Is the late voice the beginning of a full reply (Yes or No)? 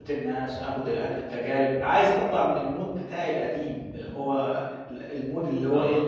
No